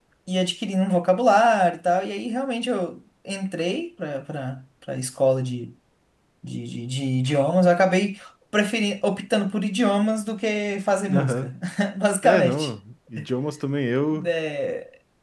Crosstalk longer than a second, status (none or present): none